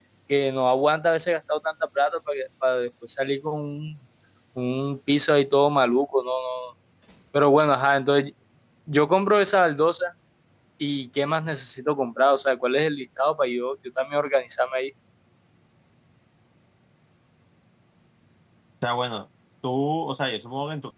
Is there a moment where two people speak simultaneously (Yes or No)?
No